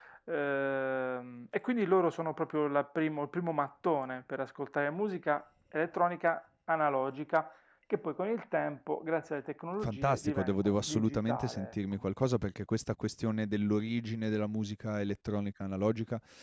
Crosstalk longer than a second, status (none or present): present